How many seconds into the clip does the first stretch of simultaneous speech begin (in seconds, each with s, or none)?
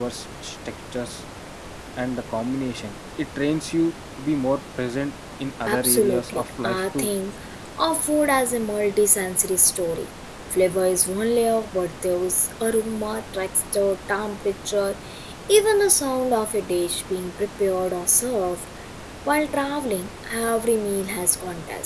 5.7 s